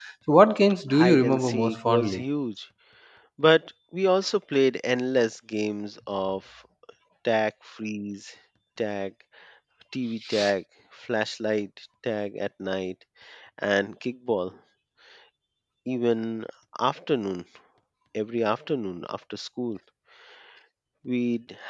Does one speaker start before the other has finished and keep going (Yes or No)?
Yes